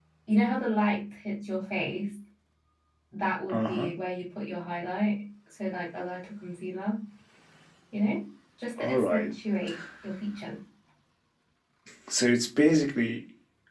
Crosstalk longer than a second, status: none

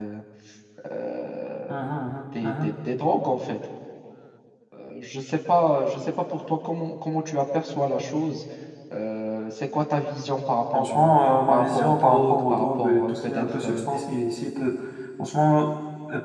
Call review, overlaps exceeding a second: present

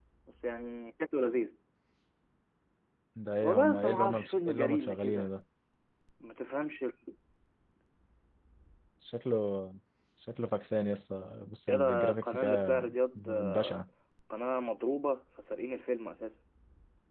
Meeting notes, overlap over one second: present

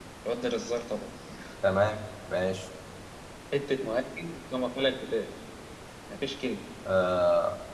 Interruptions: none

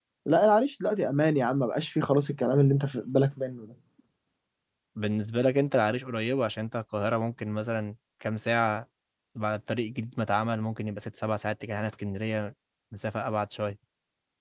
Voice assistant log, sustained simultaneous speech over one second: none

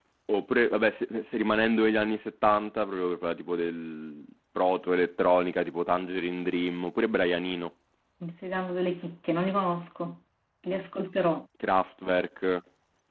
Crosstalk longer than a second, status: none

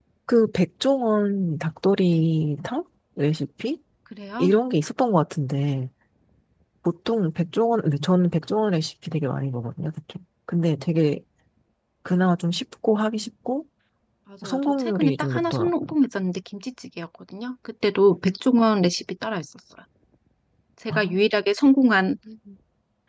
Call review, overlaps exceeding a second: present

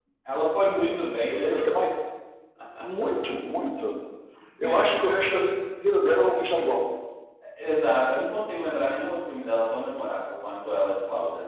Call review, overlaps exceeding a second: none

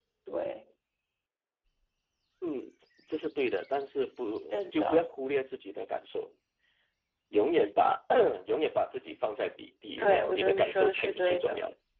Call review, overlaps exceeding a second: present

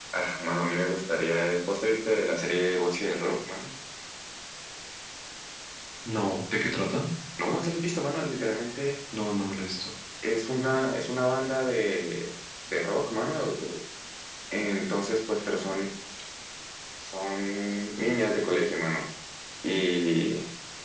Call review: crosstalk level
none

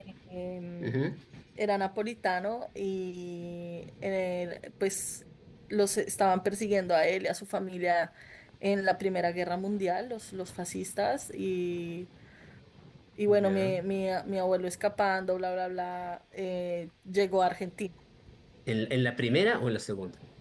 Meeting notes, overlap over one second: none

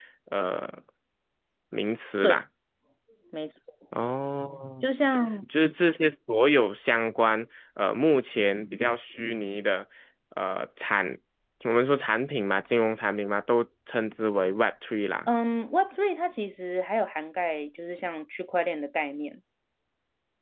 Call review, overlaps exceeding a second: none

